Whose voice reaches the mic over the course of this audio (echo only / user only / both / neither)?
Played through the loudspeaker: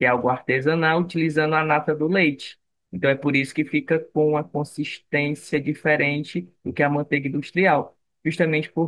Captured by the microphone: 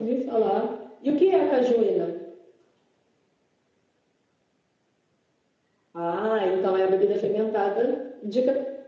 user only